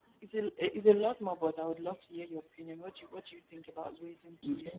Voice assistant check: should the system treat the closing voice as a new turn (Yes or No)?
Yes